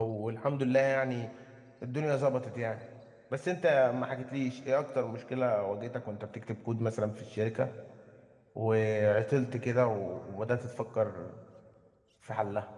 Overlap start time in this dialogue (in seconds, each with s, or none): none